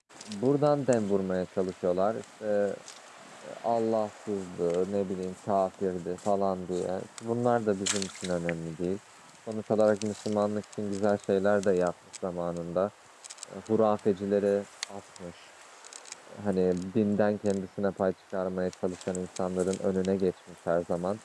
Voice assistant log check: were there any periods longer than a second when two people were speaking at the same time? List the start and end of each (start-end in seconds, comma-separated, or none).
none